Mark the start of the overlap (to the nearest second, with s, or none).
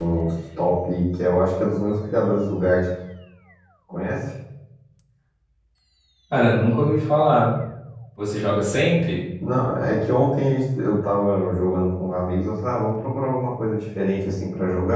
none